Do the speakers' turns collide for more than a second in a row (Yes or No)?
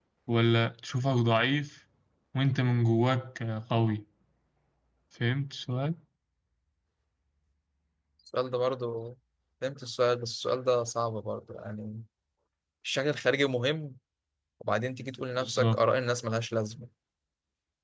No